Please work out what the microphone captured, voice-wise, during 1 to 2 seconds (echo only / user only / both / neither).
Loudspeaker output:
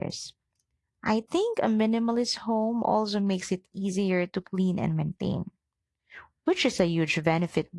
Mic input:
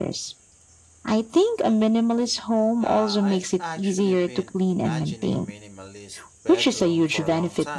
echo only